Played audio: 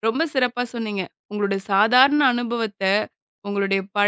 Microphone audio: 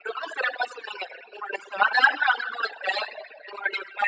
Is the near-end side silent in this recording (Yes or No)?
Yes